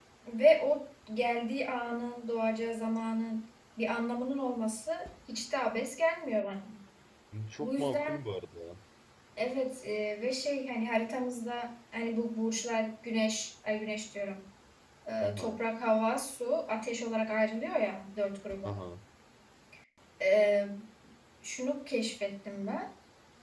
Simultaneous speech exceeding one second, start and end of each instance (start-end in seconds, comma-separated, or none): none